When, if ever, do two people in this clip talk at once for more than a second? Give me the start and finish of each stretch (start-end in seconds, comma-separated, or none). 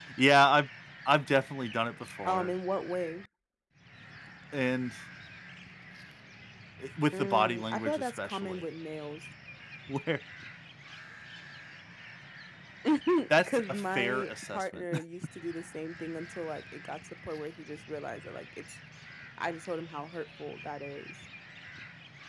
7.1-8.6, 13.5-14.8